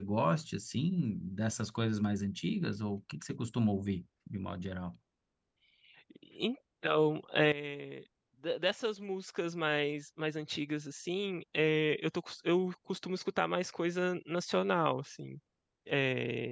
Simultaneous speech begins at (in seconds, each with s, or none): none